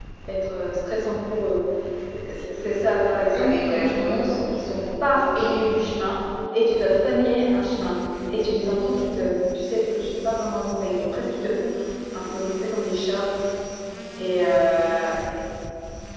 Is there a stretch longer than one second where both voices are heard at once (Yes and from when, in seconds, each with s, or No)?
Yes, from 3.3 s